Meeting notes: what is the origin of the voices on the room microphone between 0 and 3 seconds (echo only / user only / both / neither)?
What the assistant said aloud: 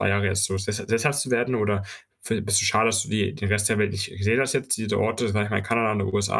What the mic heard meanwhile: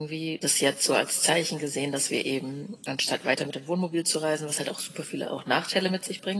user only